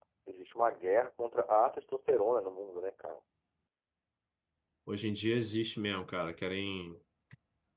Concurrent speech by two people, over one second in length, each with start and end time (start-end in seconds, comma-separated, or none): none